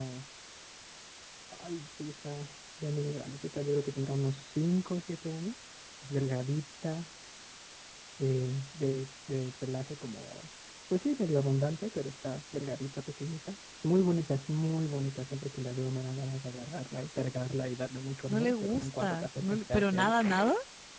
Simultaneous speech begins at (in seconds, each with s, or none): 18.3 s